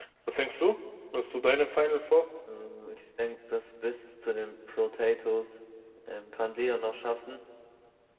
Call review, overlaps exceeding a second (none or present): none